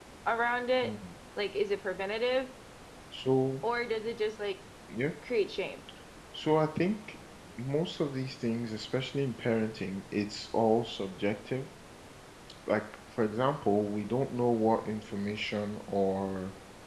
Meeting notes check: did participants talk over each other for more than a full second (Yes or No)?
No